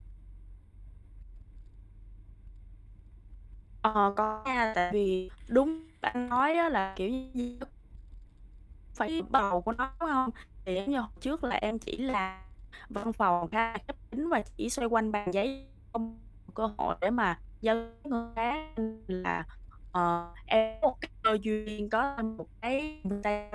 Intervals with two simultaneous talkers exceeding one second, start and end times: none

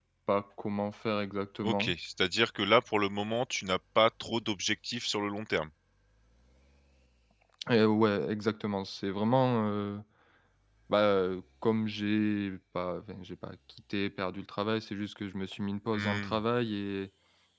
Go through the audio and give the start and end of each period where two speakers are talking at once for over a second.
none

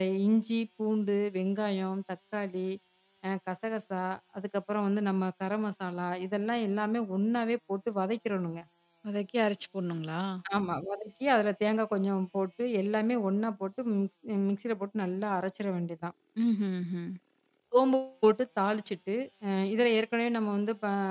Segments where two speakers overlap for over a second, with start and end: none

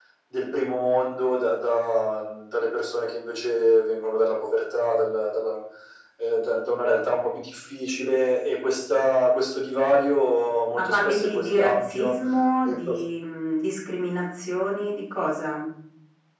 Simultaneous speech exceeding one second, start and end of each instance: 10.7-12.1

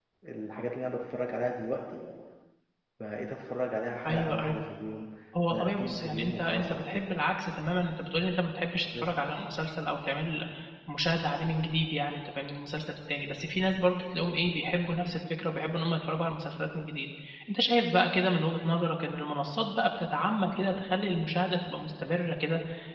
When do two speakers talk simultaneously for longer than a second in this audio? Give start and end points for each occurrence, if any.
5.5-7.0

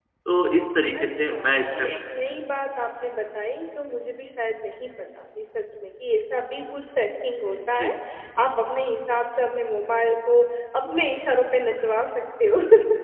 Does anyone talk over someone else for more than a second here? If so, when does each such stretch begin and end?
1.0-2.4

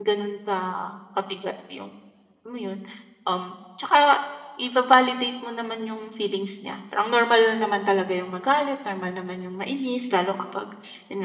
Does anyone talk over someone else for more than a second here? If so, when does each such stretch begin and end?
none

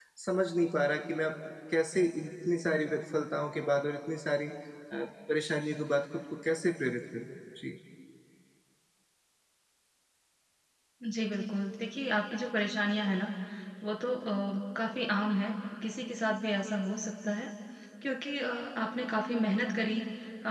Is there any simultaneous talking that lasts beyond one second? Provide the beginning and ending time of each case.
none

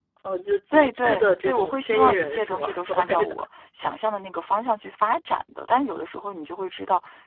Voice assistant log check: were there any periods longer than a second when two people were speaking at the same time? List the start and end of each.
0.7-3.4

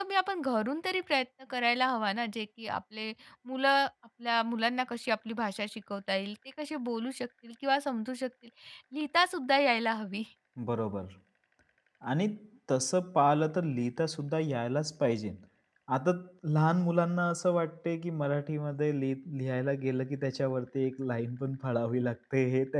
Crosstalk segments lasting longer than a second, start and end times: none

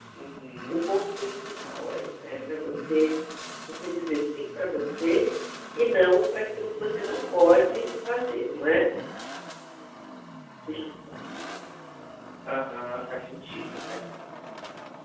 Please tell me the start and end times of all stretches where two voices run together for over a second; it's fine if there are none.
none

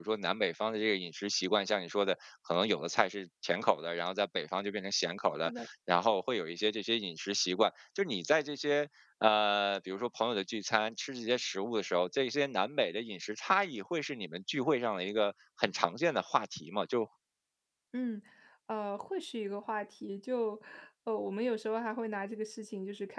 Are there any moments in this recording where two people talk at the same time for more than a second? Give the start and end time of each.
none

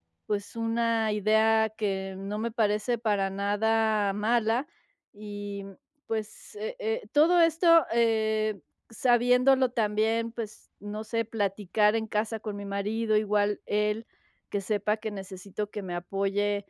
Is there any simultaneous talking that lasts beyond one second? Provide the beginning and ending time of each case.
none

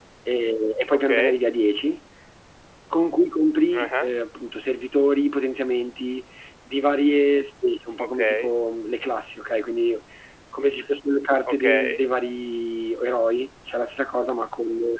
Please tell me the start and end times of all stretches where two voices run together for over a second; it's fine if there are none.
none

